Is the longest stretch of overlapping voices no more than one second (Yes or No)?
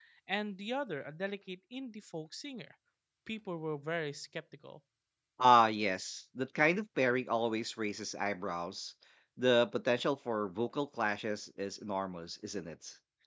Yes